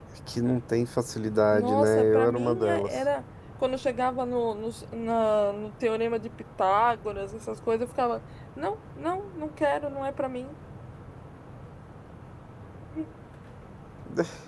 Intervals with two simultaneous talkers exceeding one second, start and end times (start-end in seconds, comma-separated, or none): 1.5-3.0